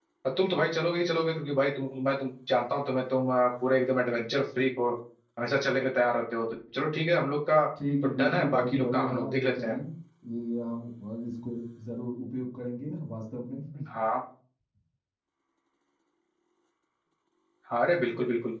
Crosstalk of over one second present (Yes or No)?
Yes